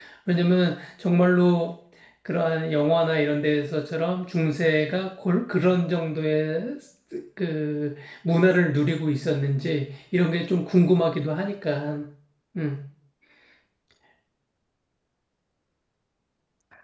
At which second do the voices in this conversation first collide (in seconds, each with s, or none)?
none